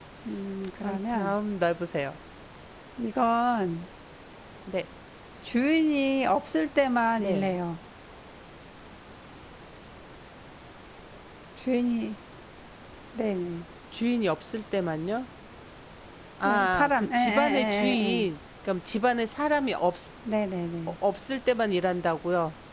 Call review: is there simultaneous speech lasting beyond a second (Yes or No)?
Yes